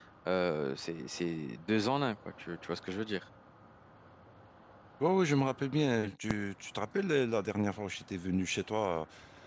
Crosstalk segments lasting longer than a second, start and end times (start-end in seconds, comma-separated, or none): none